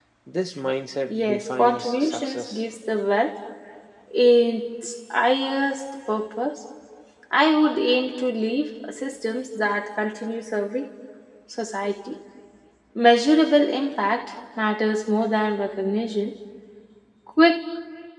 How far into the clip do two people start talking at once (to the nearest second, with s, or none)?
1 s